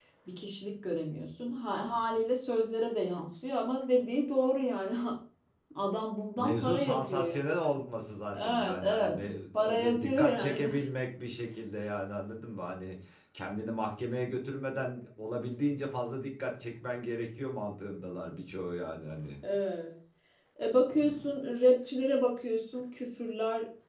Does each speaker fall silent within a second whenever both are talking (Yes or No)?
No